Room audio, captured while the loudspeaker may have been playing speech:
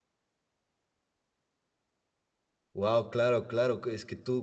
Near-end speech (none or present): present